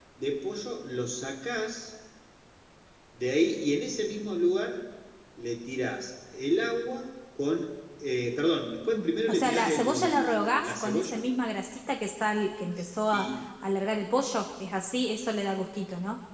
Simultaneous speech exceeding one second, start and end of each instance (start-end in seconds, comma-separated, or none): 8.8-11.2